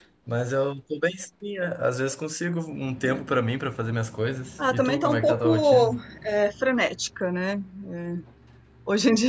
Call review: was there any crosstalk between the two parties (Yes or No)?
Yes